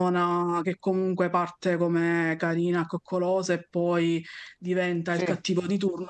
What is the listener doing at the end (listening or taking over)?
listening